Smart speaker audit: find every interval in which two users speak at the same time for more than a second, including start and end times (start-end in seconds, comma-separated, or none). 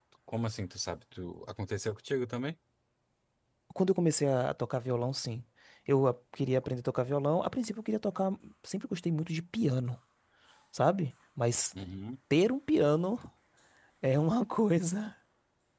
none